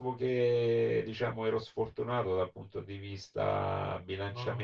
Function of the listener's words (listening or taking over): listening